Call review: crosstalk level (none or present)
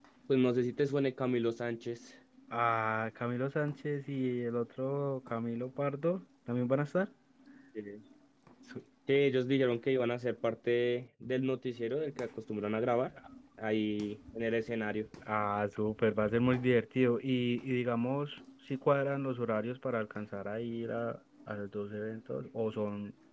none